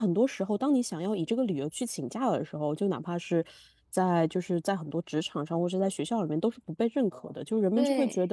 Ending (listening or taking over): listening